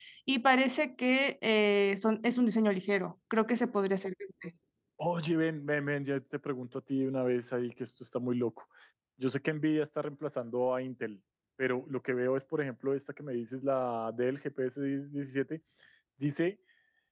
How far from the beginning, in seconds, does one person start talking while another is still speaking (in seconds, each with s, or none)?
none